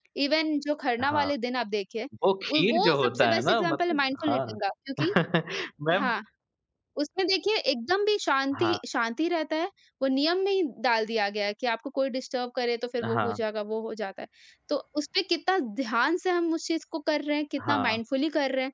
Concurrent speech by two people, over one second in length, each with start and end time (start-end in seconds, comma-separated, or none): 2.5-4.6